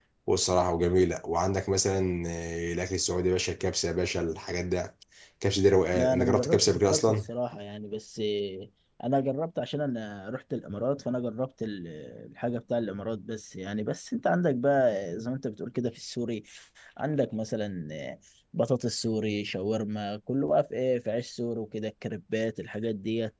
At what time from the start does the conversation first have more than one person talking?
5.9 s

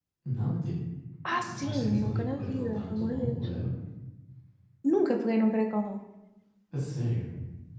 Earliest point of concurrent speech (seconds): 1.6 s

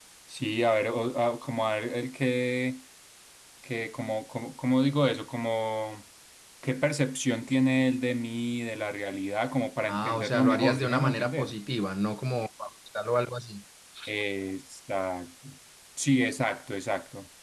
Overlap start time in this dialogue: 9.9 s

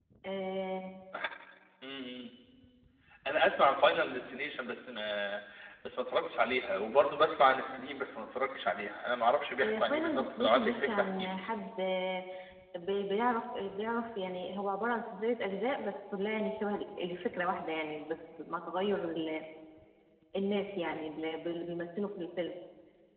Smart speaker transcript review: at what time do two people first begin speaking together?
9.6 s

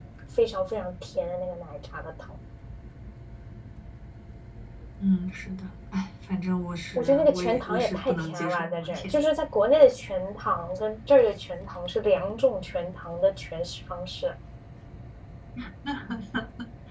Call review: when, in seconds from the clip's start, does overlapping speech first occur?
7.0 s

